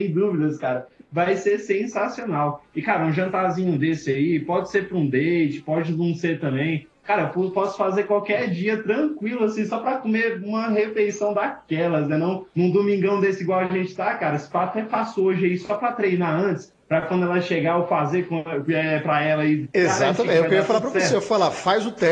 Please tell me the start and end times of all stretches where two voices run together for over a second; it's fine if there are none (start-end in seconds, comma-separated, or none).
19.8-21.2